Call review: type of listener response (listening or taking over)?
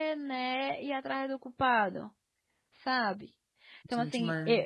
listening